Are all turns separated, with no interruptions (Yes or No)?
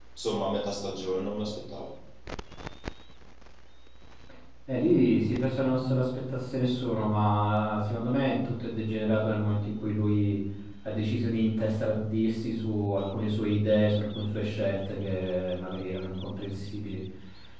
Yes